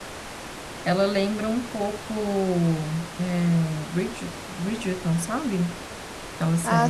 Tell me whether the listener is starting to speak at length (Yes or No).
Yes